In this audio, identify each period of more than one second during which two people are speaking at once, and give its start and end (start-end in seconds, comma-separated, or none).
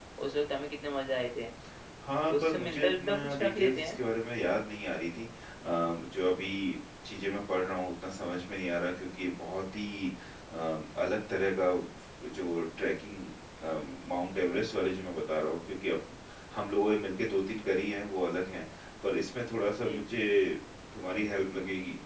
2.3-4.0